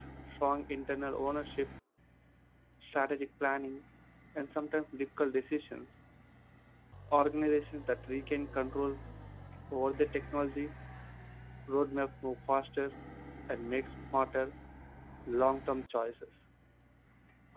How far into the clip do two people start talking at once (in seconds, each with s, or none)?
none